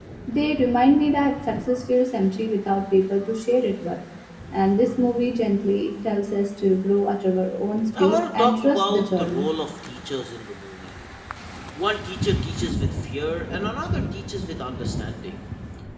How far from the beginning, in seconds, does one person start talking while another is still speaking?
7.9 s

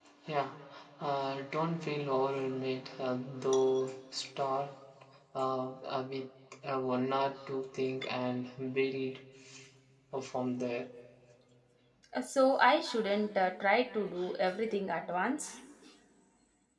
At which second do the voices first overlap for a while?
none

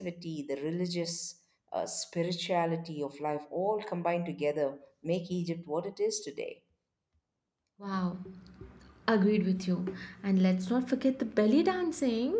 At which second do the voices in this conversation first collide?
none

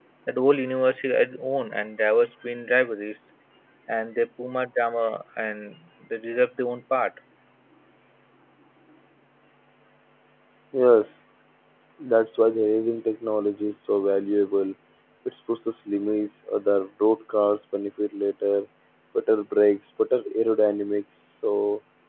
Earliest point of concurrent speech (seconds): none

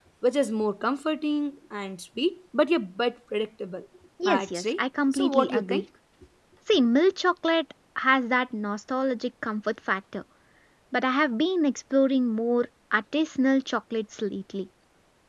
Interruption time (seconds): 4.4 s

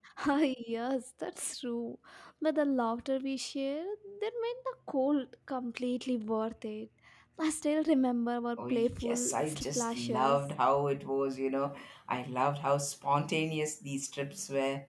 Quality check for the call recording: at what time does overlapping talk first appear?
8.6 s

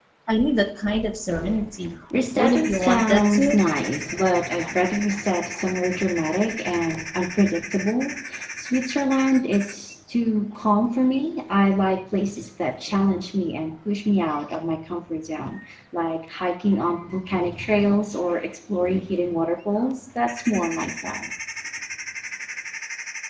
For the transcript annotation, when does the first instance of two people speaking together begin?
2.4 s

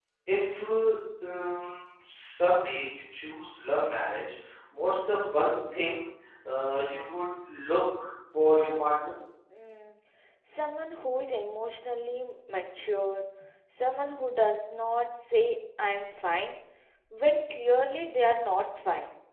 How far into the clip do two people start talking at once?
none

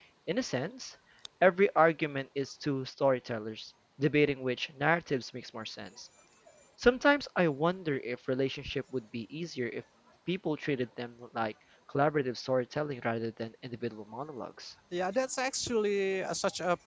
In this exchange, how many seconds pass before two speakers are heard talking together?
none

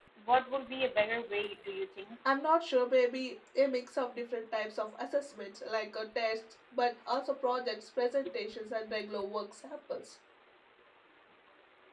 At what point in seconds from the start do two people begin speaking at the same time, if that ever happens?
none

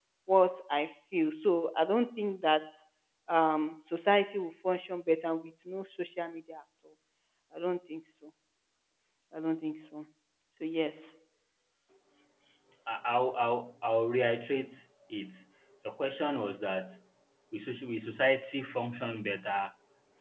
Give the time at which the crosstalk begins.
none

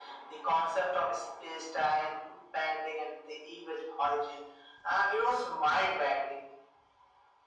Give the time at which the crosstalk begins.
none

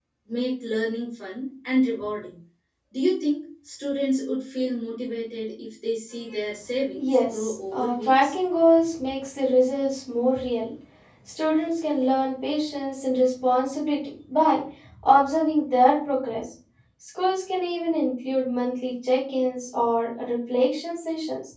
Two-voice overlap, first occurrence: 7.0 s

